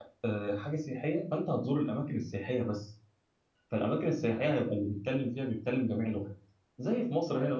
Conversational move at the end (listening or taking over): listening